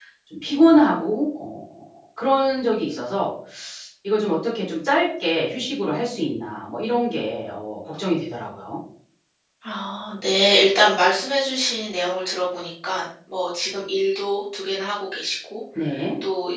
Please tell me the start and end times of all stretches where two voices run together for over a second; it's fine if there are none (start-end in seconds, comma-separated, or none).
none